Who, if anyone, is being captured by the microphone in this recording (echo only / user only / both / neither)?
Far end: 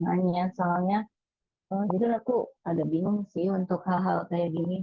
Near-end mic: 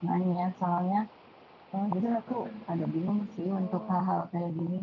both